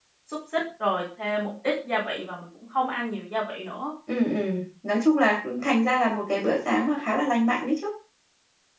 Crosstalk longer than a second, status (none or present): none